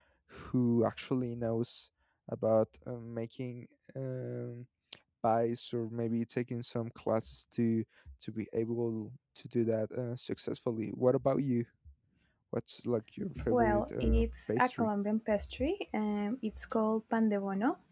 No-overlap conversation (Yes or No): No